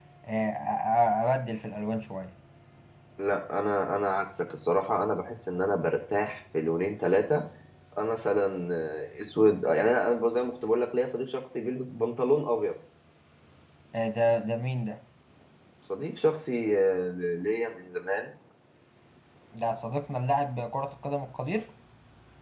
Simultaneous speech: No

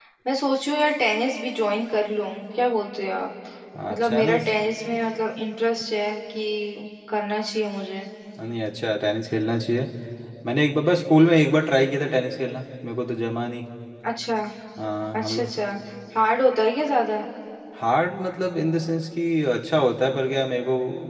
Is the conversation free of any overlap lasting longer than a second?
Yes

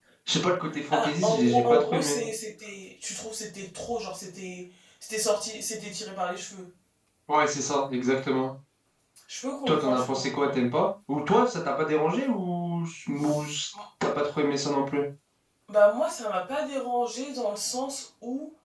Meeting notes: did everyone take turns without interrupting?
No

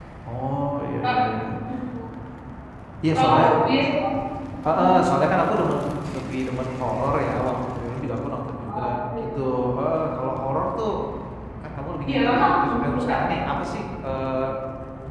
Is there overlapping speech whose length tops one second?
Yes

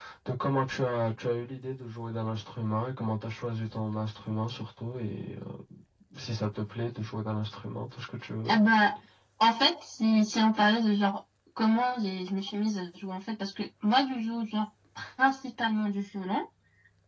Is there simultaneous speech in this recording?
No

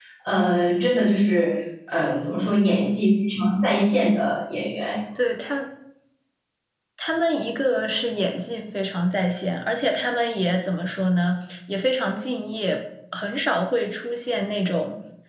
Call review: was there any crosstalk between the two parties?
No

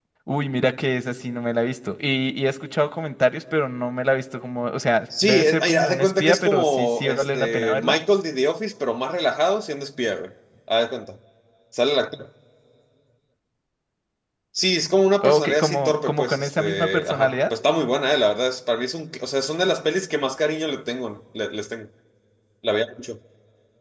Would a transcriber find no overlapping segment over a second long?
No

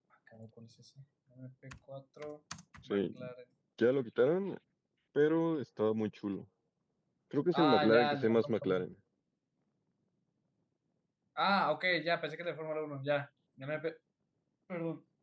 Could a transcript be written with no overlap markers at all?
No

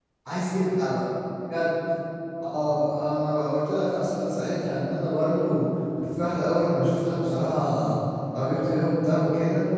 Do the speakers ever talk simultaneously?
No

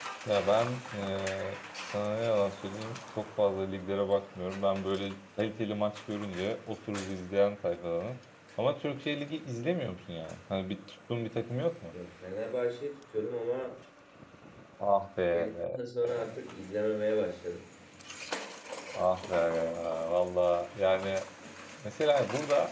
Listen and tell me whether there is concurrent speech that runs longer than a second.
No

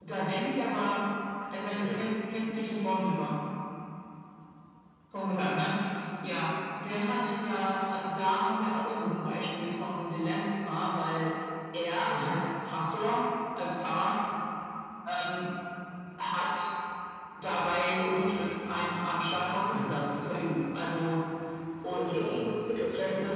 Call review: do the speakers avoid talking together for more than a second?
Yes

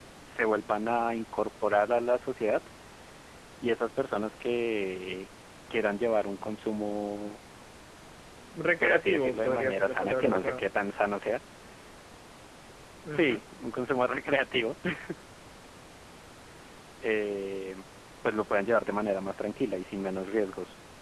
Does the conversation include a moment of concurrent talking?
Yes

